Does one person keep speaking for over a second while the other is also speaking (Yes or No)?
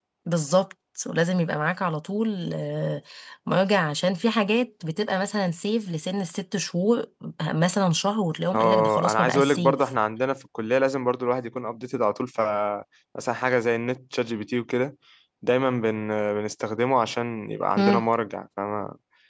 Yes